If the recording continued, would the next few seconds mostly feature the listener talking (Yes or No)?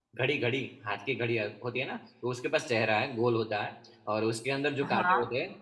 No